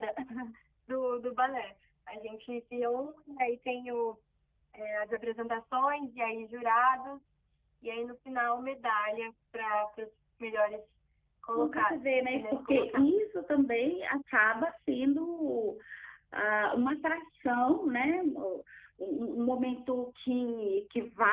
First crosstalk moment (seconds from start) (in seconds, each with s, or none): 11.6 s